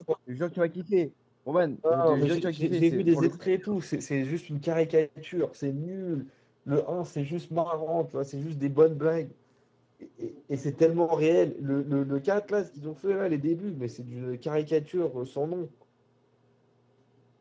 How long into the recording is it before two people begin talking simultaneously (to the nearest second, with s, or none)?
2 s